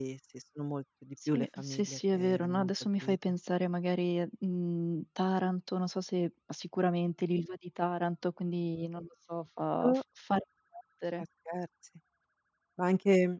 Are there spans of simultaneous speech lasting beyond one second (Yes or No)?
Yes